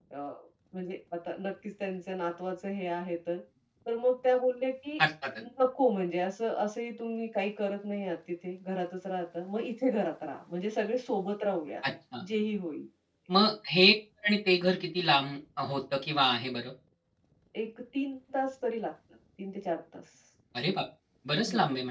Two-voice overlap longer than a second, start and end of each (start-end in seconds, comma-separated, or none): none